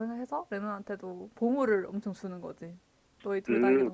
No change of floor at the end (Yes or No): No